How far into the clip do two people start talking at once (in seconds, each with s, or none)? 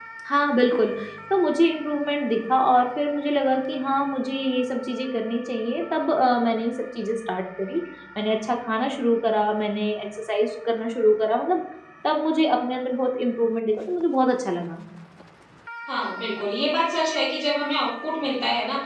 none